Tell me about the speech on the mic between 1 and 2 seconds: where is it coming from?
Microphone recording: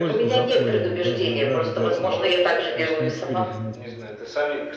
both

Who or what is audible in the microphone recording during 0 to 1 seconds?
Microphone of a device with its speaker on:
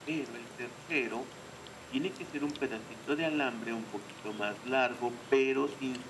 echo only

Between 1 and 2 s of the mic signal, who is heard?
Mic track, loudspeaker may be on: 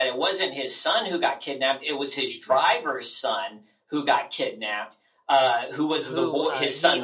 echo only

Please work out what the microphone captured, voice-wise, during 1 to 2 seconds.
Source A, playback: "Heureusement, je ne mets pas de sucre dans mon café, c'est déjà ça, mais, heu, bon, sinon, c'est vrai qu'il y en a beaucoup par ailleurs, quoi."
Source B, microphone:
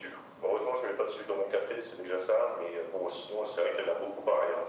echo only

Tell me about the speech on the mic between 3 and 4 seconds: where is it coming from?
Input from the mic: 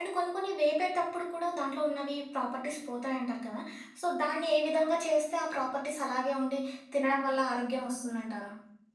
user only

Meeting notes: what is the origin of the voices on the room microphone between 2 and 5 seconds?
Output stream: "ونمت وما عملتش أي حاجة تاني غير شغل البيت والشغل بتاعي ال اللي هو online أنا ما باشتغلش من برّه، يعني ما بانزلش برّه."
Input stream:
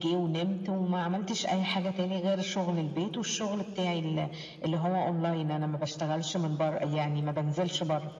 echo only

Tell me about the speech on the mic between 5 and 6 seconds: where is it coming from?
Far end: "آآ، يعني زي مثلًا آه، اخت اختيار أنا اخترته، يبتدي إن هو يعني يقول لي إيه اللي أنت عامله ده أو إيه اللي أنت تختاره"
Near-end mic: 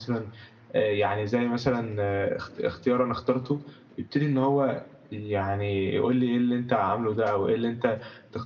echo only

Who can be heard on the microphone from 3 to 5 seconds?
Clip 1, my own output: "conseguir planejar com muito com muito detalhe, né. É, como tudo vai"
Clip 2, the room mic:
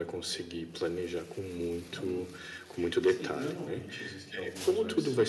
both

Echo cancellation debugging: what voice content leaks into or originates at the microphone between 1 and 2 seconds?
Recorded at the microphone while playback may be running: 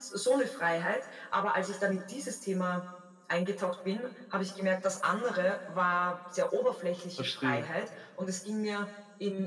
echo only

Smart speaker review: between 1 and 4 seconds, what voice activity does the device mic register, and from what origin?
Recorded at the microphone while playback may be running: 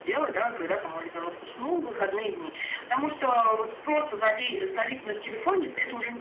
echo only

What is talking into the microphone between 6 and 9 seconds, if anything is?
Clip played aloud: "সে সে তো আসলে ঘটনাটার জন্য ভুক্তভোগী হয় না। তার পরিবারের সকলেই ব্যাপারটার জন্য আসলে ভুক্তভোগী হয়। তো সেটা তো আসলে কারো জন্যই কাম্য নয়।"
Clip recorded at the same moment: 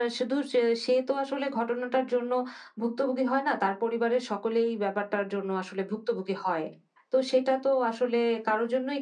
echo only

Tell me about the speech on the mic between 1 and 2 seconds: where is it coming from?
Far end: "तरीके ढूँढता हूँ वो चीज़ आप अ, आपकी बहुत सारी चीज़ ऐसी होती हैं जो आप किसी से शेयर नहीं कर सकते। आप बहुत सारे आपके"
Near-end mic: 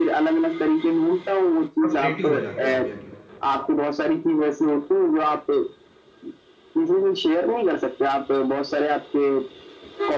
both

